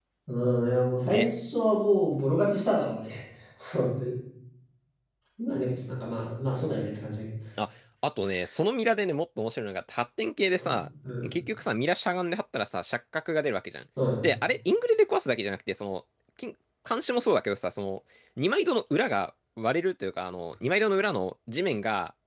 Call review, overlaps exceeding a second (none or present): none